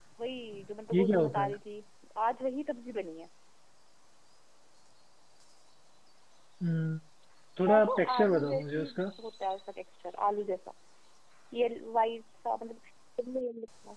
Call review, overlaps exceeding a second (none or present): present